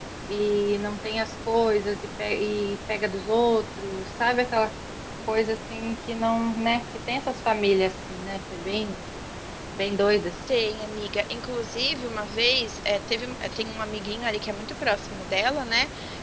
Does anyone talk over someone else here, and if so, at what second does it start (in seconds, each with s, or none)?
none